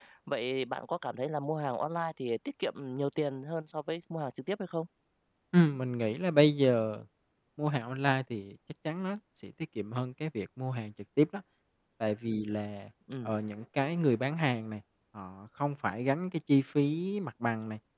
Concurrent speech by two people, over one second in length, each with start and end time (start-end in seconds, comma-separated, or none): none